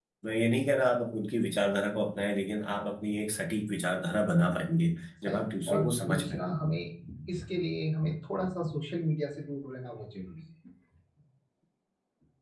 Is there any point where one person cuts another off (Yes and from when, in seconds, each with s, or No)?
Yes, from 5.2 s